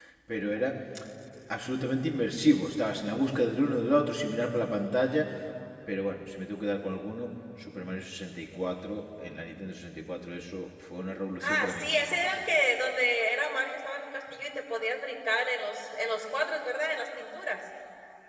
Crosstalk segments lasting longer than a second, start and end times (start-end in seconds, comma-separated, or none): none